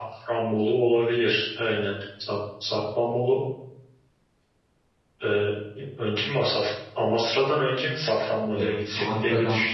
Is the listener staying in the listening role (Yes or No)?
No